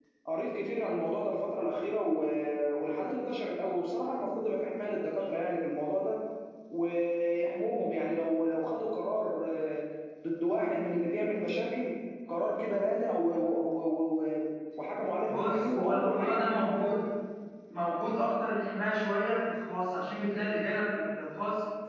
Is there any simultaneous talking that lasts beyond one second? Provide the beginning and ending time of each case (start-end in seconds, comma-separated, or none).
15.2-17.0